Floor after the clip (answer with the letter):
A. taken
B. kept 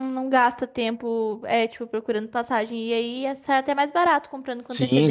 A